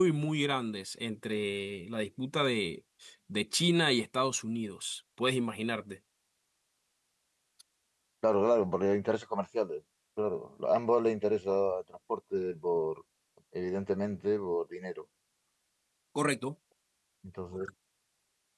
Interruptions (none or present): none